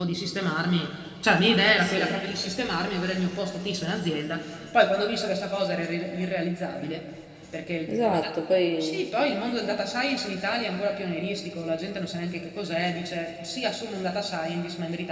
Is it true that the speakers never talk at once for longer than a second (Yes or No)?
Yes